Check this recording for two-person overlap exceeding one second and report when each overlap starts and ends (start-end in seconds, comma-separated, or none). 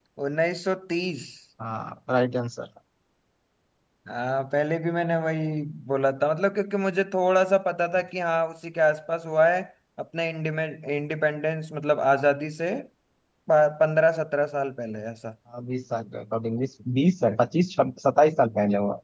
none